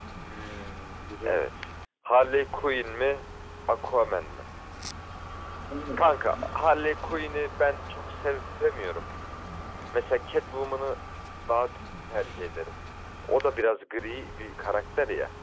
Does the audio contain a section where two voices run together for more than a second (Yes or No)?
No